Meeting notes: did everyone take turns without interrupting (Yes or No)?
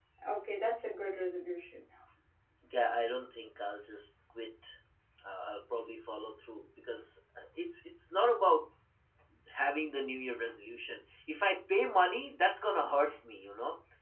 Yes